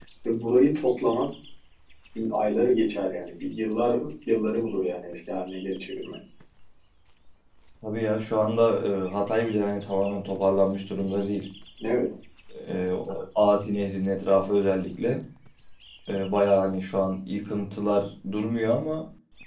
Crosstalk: none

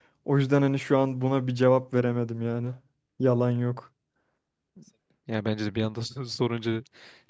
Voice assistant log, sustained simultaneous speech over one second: none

